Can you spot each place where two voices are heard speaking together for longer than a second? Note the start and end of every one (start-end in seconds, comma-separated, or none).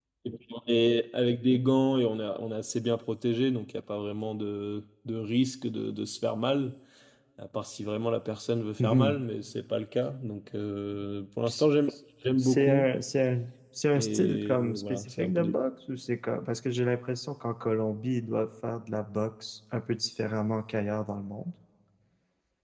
13.9-15.6